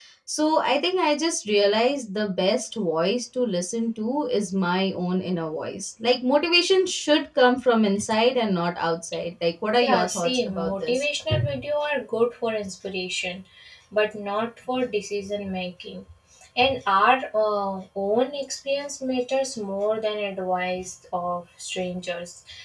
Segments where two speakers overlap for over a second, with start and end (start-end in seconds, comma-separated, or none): 9.8-11.0